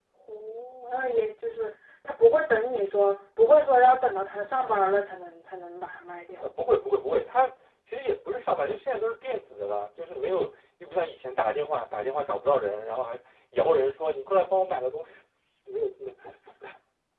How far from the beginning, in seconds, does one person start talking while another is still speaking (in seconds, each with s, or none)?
none